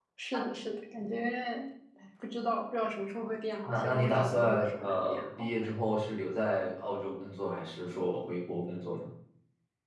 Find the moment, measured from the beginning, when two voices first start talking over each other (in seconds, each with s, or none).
3.6 s